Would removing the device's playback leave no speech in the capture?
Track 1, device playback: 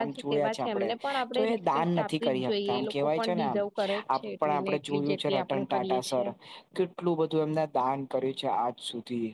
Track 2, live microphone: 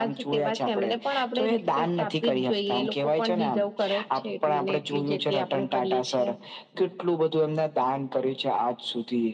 Yes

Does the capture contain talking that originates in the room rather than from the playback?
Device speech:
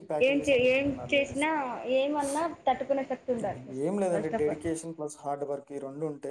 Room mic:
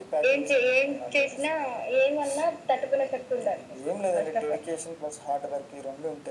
No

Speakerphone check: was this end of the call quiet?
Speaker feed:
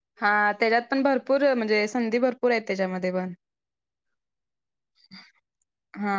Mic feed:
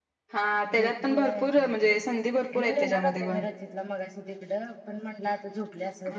No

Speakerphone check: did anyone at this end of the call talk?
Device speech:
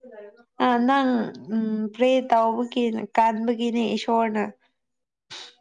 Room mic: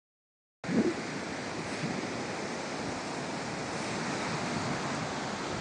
No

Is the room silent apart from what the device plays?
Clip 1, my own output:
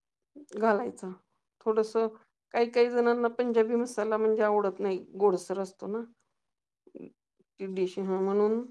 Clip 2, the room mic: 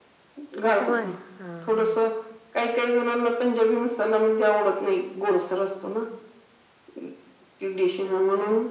No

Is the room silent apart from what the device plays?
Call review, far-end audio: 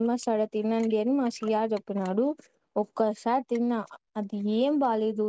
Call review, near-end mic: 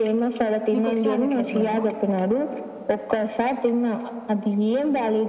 No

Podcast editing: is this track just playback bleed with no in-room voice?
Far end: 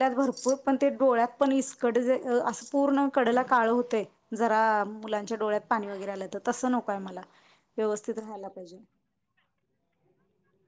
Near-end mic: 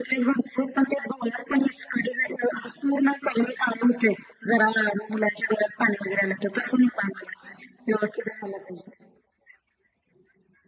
Yes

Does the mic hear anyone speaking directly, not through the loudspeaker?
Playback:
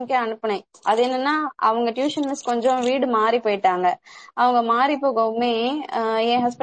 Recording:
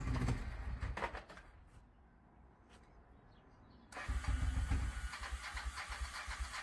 No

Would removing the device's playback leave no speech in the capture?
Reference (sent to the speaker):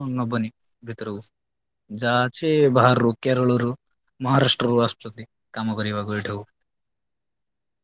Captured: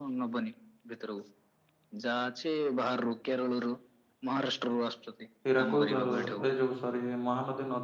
No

